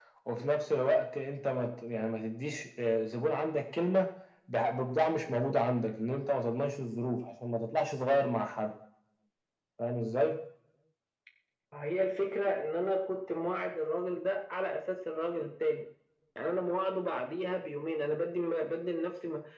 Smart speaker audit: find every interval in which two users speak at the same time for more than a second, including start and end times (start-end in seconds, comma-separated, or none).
none